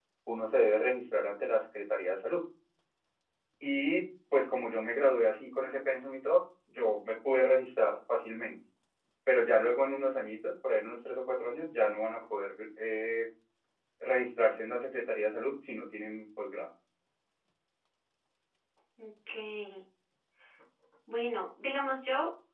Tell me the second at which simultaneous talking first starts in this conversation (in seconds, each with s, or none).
none